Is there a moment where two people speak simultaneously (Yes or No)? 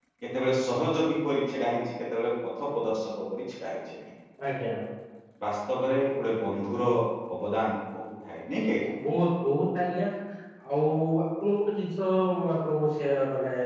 No